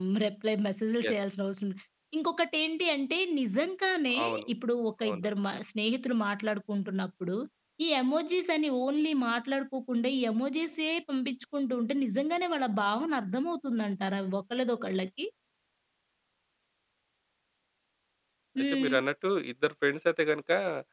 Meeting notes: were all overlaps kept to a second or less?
Yes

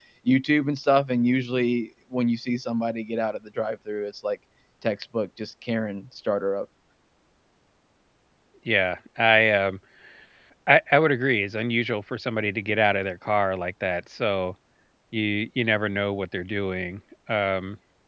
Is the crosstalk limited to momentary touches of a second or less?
Yes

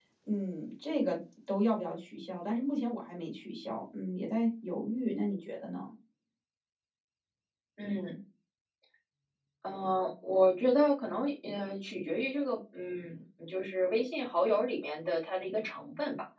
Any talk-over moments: No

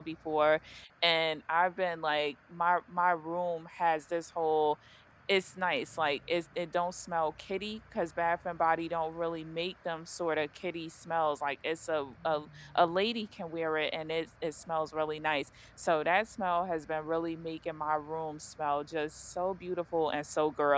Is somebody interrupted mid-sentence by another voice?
No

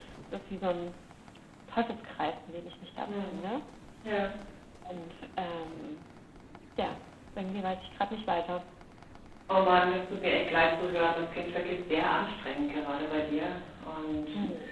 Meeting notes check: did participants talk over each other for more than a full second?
No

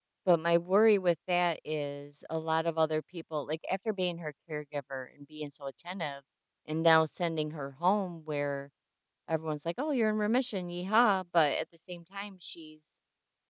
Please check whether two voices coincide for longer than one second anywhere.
No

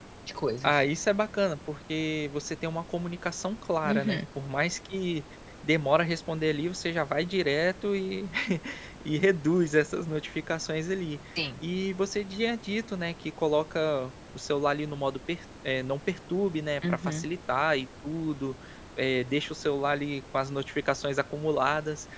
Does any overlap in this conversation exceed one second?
No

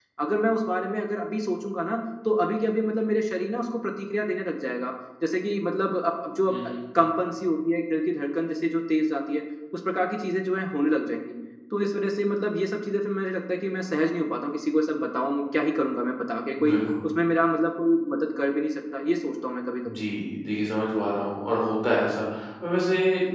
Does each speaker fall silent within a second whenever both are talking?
Yes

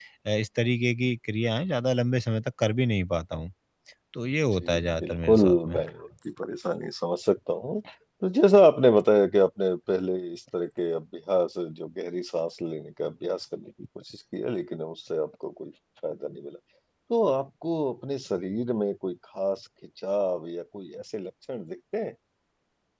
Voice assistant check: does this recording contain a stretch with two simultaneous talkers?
Yes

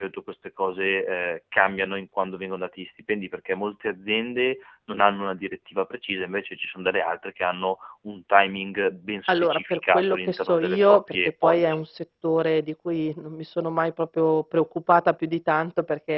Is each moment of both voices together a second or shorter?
No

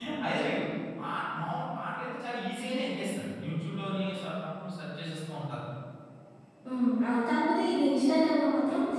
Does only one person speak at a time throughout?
Yes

